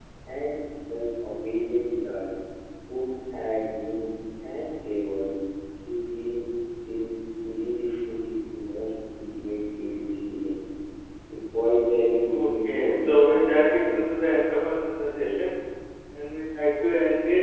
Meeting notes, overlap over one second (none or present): present